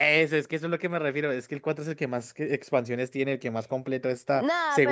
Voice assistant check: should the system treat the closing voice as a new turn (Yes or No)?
Yes